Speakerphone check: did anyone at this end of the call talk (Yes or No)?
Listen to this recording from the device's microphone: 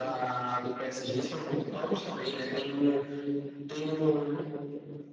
No